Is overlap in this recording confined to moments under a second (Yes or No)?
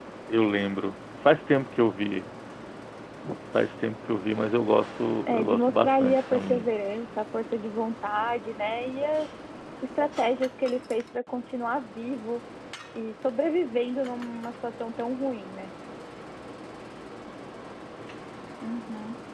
No